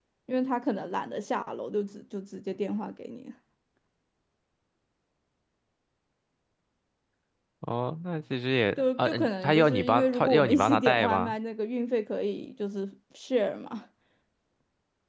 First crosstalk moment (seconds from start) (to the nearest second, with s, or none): 9 s